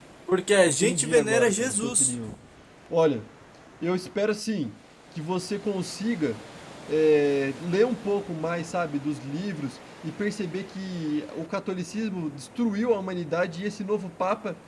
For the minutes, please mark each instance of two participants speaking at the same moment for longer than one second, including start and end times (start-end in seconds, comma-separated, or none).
0.7-2.1